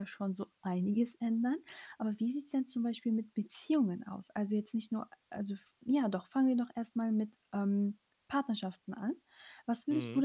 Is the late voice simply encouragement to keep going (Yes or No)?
Yes